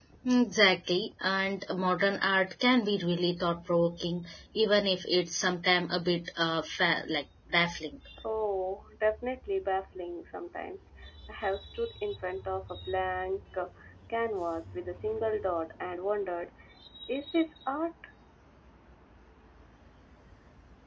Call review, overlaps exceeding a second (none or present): none